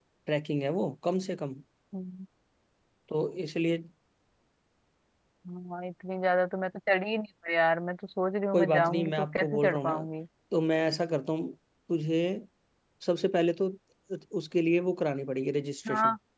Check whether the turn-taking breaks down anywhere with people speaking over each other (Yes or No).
Yes